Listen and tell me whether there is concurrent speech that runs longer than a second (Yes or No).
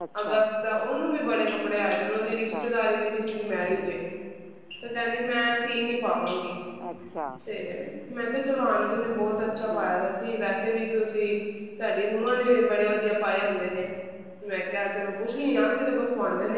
No